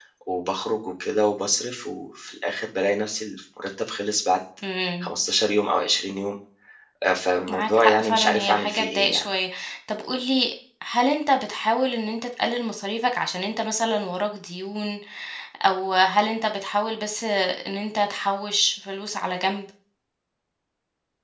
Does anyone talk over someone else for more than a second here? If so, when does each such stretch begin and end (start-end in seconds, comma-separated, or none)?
7.5-9.3